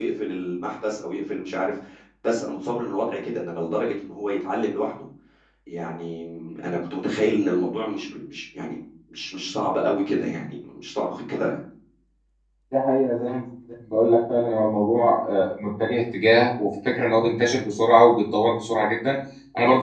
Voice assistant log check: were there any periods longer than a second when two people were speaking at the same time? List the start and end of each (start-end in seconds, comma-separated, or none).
none